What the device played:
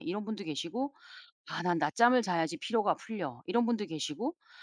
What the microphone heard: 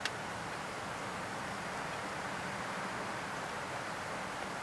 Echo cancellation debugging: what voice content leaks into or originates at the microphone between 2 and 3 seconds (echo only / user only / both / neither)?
neither